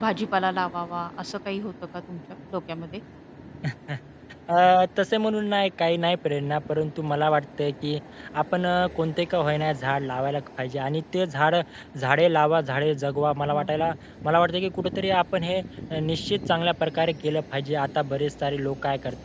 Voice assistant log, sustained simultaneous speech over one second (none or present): none